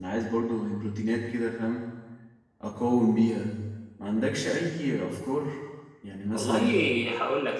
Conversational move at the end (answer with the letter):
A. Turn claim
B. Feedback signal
A